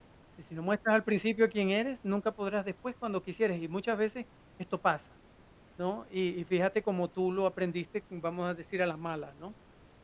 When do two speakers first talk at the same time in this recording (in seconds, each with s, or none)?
none